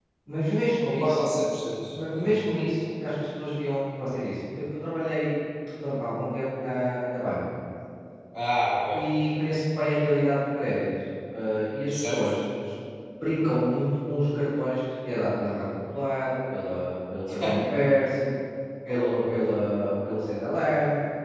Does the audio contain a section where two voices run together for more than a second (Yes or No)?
No